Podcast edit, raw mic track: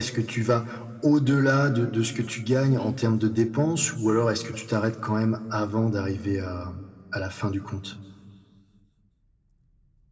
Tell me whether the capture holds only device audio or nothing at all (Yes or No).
No